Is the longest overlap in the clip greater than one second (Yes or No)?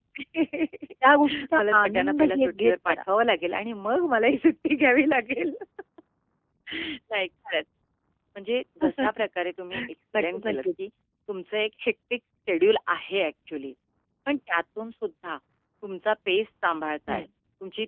Yes